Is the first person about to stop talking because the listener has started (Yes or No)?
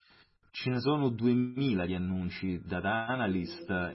No